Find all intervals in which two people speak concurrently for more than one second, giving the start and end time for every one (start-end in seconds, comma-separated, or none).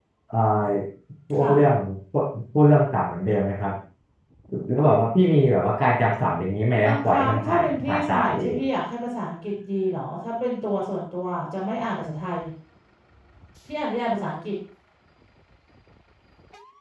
6.8-8.6